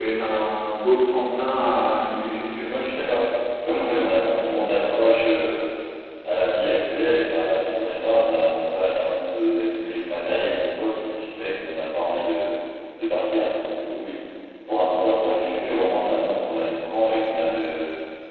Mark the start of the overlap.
none

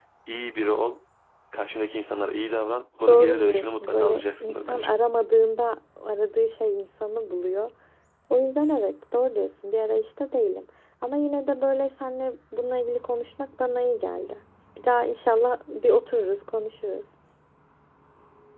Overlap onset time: 3.1 s

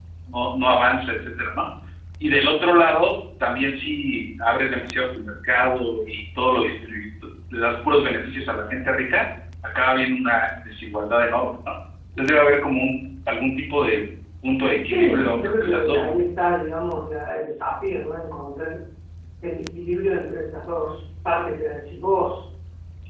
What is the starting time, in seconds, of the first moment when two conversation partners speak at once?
14.8 s

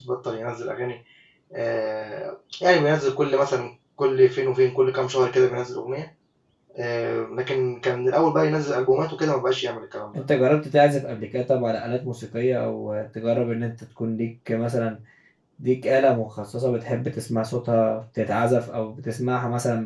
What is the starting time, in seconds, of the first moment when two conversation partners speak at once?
none

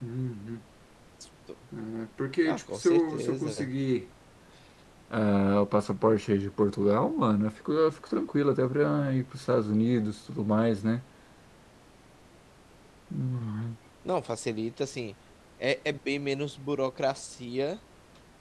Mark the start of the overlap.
2.5 s

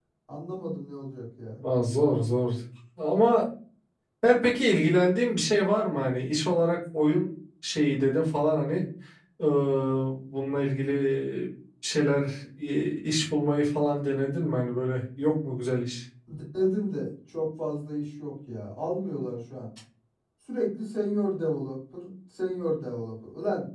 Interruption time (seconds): none

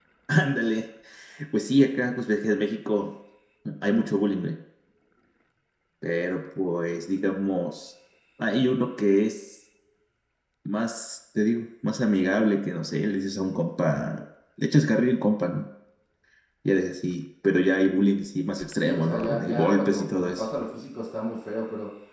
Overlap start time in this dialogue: 18.7 s

